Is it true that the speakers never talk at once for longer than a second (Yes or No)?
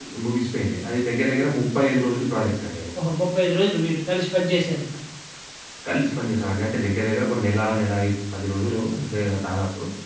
Yes